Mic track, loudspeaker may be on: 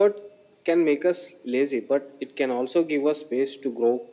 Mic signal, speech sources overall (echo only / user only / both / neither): echo only